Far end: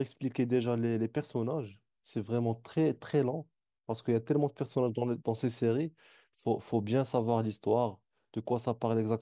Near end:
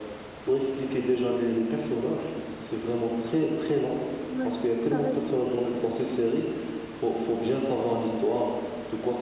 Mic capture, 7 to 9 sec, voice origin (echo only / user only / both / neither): echo only